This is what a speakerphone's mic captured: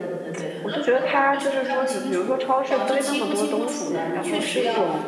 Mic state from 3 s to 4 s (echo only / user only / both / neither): both